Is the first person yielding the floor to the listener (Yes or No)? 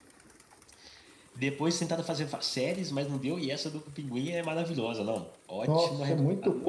Yes